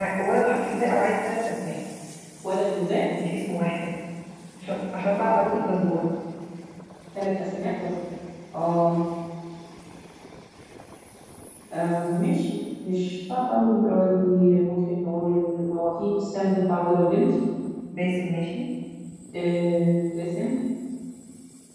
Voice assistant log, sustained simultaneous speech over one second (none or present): none